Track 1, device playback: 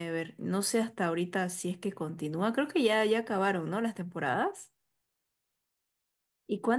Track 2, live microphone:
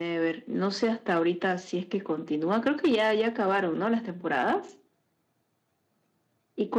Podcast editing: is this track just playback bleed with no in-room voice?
Yes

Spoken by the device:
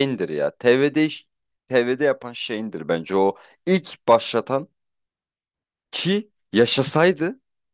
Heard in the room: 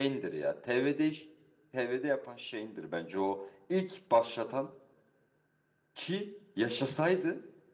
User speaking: No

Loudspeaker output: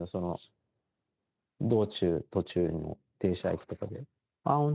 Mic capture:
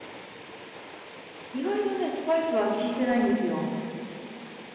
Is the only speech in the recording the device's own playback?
No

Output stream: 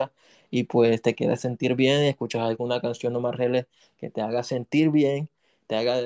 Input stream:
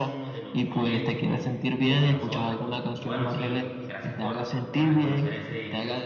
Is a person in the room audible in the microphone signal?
Yes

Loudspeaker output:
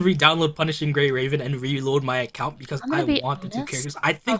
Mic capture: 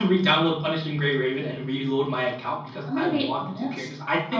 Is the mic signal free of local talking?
Yes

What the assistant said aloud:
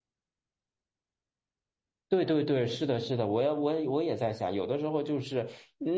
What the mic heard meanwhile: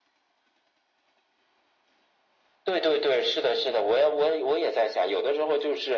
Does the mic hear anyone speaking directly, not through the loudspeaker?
No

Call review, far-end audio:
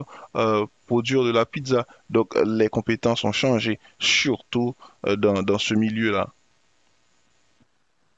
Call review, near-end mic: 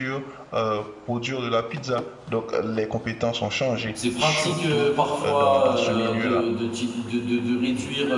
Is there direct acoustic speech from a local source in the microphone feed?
Yes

